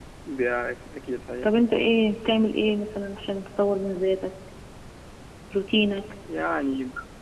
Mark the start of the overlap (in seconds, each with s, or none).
none